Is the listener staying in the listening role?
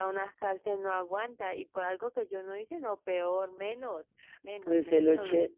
No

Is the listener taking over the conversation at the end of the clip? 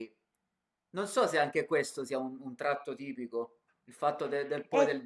No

